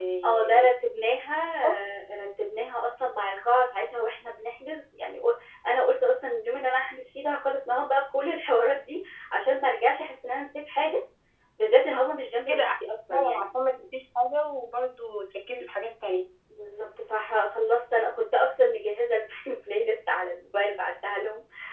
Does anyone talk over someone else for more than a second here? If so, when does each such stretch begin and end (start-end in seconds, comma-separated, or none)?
none